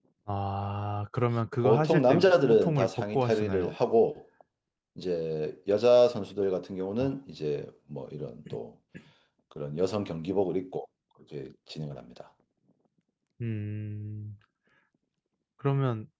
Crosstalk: present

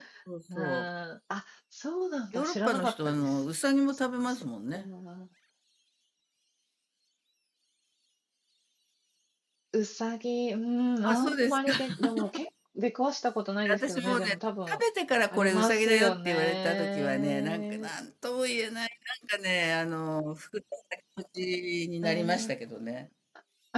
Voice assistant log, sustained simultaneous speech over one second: present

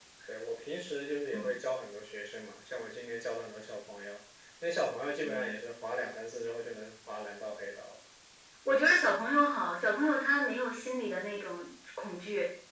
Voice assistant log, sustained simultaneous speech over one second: none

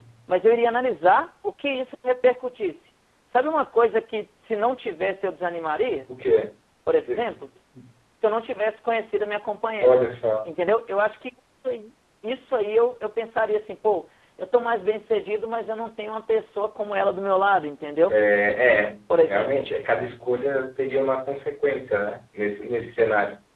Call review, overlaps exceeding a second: none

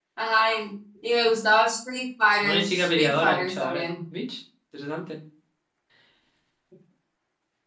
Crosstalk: present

